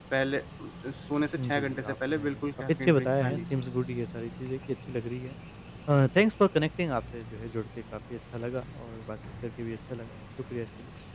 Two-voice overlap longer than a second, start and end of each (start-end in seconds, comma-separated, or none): 1.4-3.4